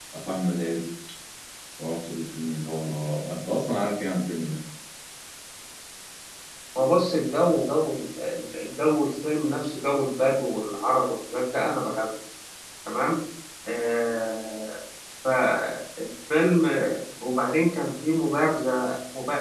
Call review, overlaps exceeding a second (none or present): none